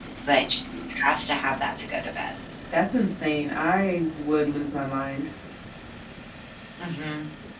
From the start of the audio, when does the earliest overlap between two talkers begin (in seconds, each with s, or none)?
none